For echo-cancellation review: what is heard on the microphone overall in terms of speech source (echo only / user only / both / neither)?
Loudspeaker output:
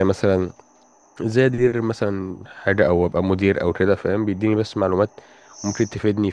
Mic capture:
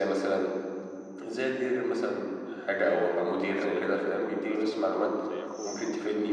both